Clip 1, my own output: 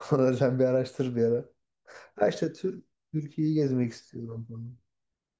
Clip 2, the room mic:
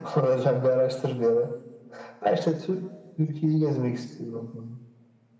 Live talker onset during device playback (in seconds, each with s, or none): none